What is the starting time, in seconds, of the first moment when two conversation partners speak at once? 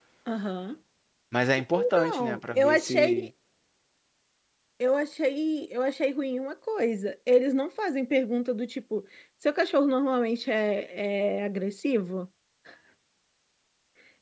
1.8 s

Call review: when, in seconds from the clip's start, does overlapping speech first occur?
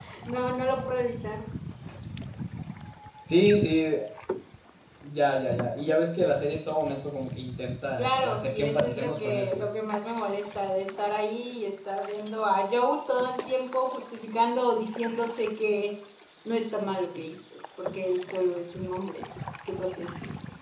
8.0 s

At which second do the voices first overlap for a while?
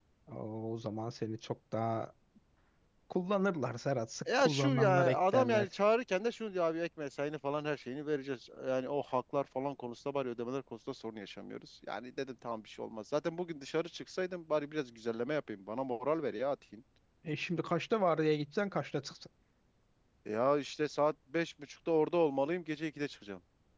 4.3 s

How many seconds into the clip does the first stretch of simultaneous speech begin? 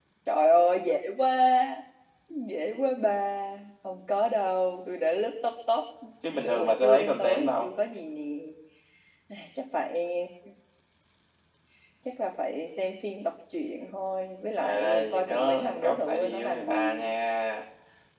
6.4 s

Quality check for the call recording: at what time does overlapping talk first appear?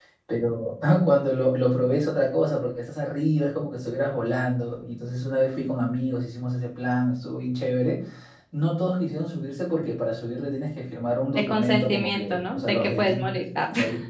11.4 s

